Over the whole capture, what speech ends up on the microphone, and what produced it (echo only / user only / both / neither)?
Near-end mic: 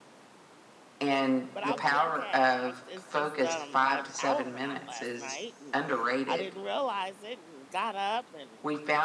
both